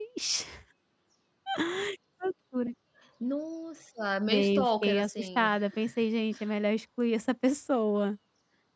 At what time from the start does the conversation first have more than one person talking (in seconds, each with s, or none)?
4.3 s